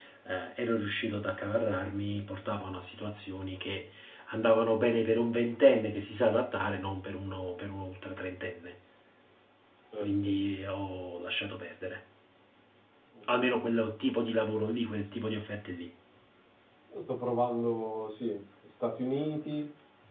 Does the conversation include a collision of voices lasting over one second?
No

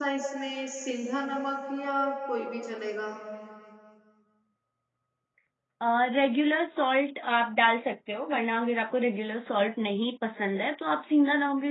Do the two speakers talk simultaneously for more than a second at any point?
No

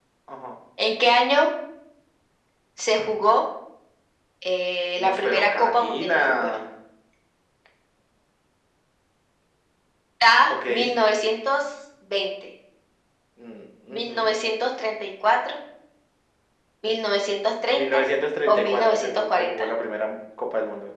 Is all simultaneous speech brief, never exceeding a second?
No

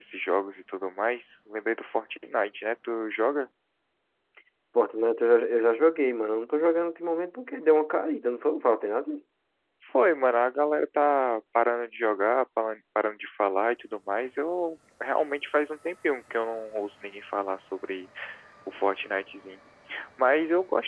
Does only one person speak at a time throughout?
Yes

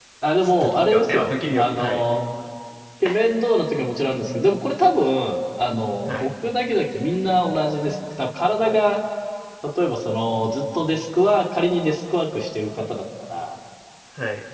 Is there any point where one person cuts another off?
Yes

